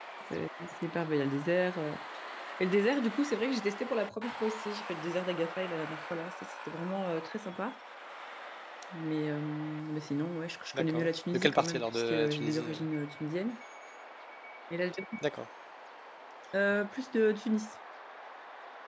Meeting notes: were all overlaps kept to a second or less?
No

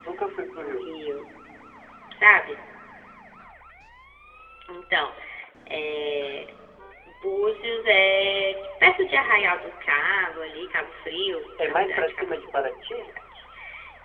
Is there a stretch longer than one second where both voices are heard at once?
Yes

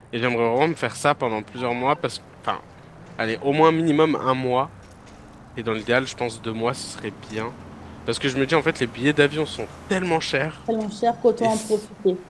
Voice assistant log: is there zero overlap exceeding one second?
Yes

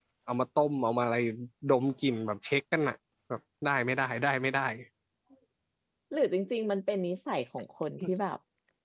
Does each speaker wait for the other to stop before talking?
Yes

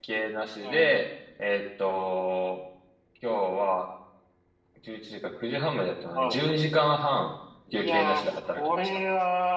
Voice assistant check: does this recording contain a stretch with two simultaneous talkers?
Yes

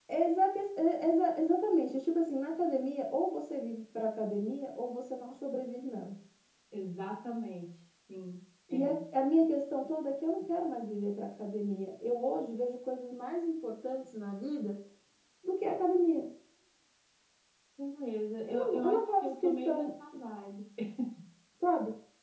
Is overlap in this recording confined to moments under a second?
No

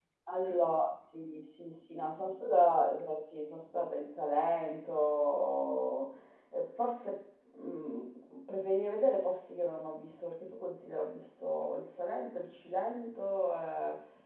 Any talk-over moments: No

